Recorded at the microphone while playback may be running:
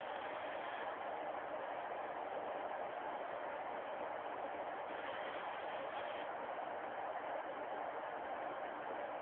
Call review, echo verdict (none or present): none